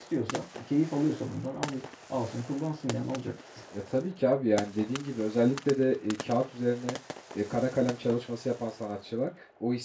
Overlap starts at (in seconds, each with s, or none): none